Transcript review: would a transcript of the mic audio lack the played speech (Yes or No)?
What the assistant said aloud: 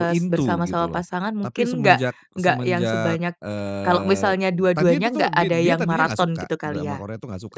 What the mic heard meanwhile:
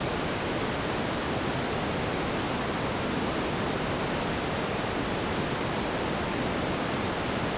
Yes